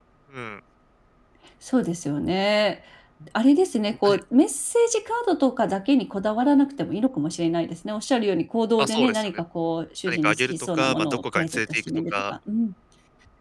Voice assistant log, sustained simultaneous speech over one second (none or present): present